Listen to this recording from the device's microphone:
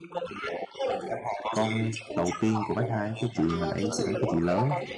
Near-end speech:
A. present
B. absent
A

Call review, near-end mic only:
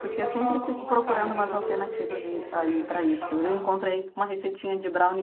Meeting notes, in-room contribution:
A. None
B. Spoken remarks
B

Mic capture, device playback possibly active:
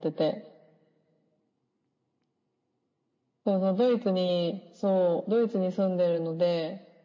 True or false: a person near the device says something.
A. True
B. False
B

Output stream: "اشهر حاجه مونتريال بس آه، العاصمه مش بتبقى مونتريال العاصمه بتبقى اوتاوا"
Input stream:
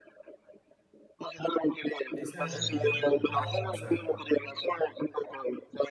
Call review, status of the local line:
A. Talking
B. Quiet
A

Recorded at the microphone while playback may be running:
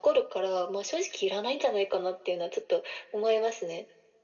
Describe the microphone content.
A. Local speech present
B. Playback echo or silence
B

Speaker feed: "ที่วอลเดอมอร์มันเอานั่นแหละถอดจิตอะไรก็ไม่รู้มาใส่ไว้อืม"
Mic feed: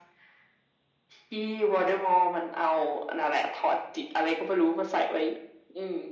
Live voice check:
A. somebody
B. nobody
B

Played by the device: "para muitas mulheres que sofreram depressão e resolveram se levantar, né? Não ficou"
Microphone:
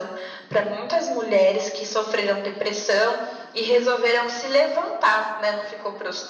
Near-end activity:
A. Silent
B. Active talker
A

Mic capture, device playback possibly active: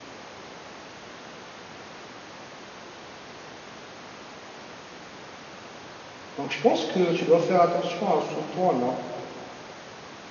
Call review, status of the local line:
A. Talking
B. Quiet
A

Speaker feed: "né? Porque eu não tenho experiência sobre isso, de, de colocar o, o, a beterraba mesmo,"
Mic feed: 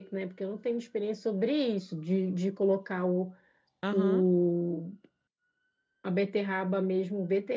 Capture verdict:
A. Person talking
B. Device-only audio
A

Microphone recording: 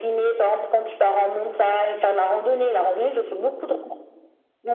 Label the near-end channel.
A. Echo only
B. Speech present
A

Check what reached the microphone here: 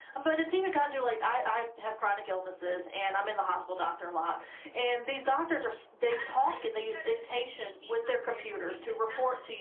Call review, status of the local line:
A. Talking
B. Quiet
A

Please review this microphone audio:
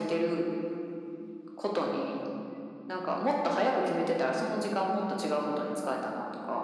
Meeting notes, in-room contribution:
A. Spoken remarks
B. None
B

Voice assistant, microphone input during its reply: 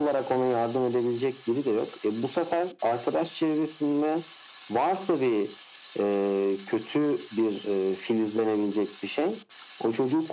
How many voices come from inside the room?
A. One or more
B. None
B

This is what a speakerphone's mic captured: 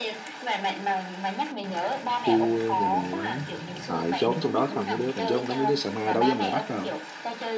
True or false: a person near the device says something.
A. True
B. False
A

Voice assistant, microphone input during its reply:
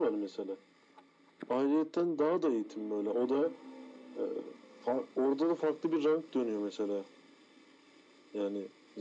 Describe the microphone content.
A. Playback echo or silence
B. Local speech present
A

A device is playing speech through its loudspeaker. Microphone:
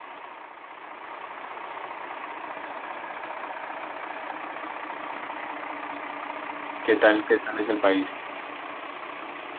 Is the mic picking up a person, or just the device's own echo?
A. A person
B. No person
A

